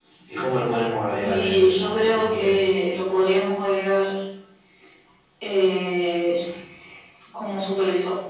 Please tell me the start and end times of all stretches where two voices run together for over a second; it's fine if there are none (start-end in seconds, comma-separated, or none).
1.2-2.5